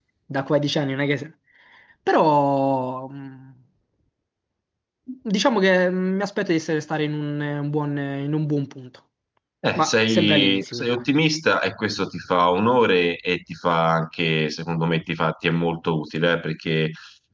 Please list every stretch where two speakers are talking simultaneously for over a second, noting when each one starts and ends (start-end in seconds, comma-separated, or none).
9.8-11.0